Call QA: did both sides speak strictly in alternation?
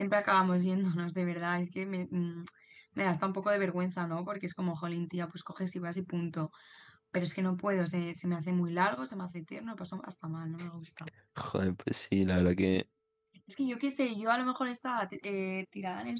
Yes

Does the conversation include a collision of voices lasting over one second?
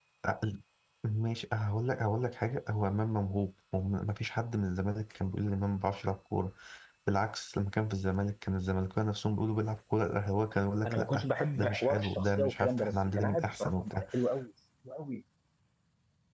Yes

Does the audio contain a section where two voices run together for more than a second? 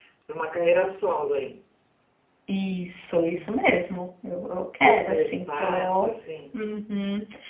Yes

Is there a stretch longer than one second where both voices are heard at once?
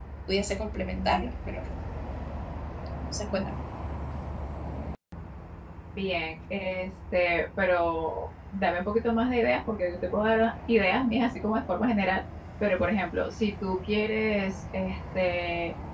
No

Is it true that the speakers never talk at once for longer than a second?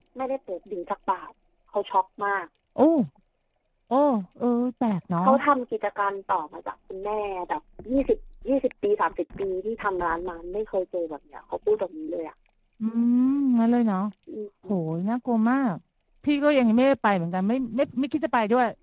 Yes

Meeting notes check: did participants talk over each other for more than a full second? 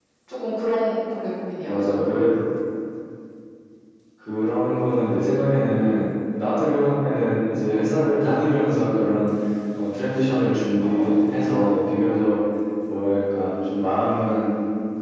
No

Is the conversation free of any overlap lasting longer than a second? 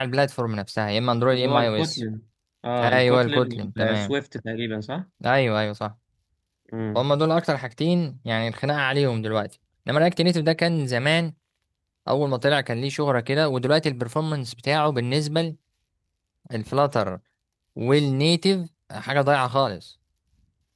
No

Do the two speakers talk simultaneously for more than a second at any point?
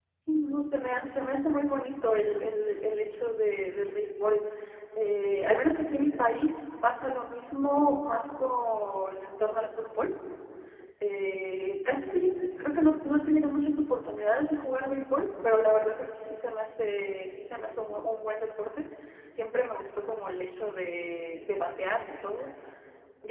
No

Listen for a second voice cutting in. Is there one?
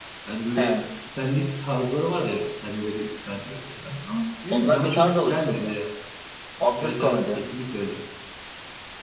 Yes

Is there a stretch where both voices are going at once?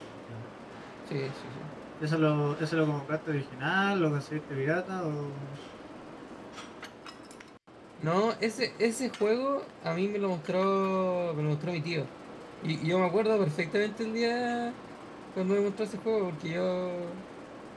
No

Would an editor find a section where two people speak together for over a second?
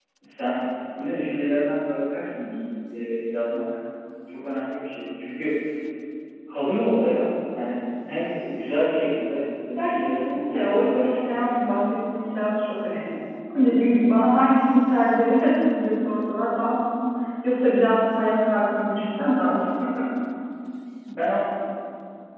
Yes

